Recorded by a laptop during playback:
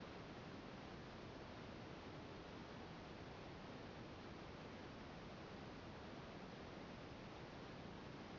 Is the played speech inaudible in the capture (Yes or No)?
Yes